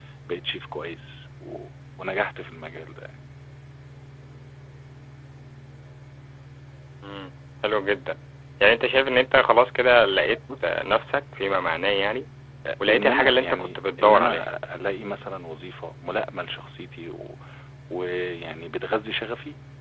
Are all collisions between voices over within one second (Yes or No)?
No